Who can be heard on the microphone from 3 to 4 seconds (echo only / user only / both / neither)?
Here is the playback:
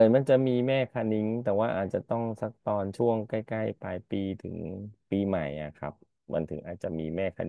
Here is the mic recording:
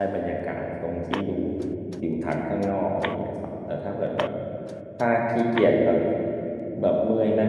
user only